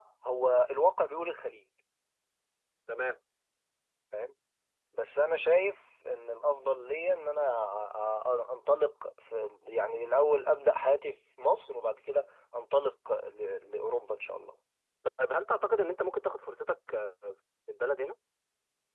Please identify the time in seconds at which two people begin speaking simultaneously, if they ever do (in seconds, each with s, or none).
none